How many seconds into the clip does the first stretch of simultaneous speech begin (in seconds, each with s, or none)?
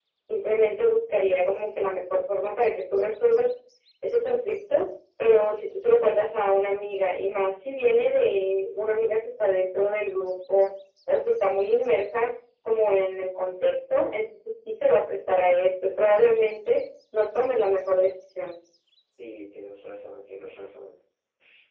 none